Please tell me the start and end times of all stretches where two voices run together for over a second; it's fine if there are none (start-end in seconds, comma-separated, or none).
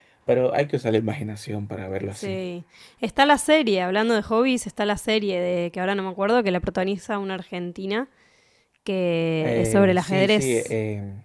9.4-10.7